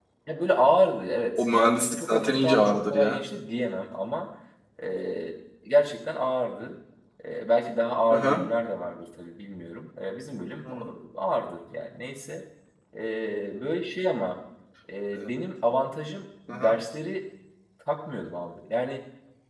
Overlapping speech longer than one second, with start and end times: 1.4-3.2

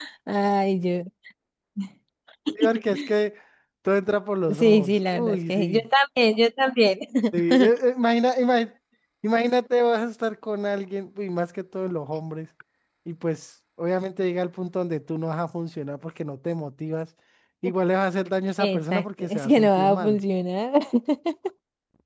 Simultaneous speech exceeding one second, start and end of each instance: 4.6-5.9, 18.6-20.2

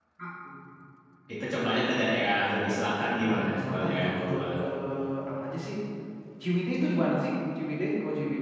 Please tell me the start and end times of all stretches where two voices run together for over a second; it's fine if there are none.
3.2-4.5

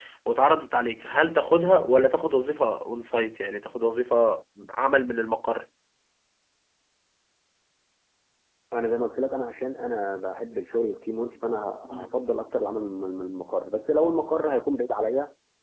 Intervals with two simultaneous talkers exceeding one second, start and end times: none

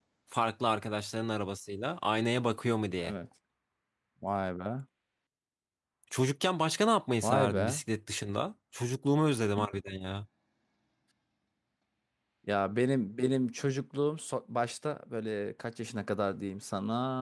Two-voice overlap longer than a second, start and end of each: none

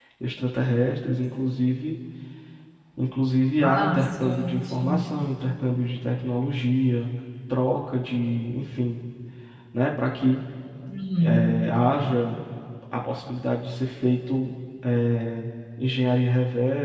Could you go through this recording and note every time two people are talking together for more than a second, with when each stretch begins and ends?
3.6-5.1

